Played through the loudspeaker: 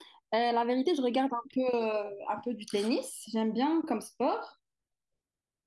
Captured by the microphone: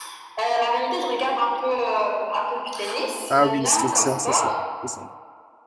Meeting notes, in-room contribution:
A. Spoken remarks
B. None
A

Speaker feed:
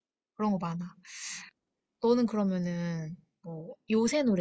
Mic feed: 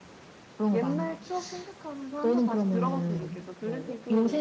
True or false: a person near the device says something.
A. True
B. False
A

